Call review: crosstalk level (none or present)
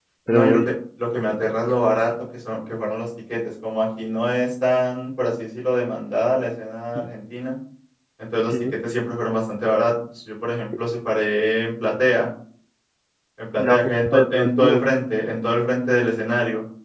present